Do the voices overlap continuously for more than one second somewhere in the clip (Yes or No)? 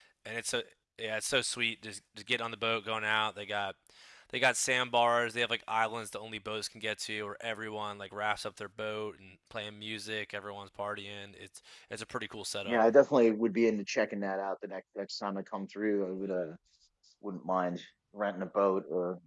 No